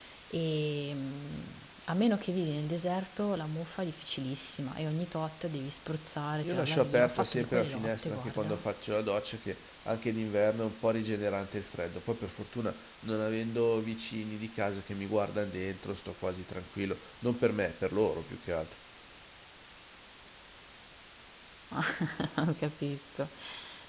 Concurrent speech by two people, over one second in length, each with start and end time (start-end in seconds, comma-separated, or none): 6.4-8.6